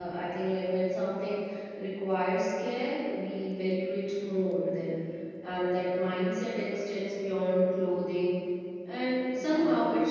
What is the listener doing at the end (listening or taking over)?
listening